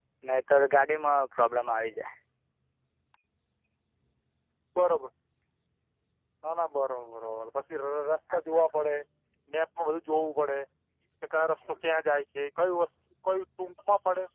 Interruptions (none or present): none